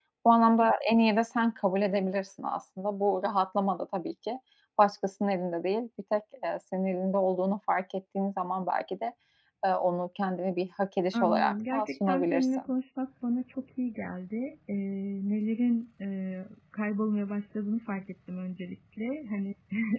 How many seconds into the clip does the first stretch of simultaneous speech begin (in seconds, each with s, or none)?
11.1 s